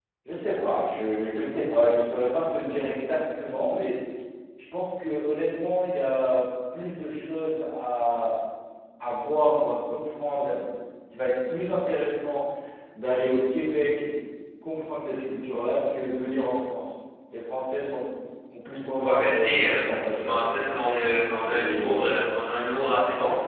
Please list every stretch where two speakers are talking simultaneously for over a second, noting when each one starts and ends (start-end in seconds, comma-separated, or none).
19.0-20.4